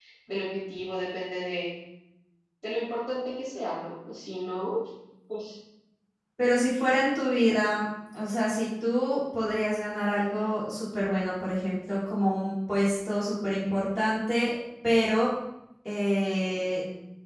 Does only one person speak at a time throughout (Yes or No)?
Yes